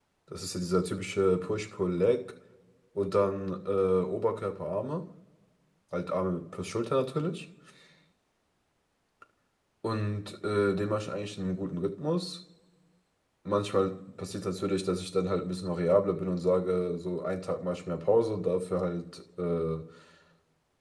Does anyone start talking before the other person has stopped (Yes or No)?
No